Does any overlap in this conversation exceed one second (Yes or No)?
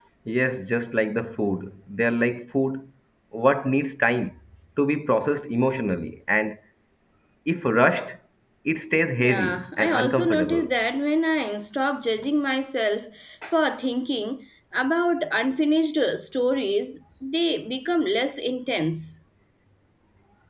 Yes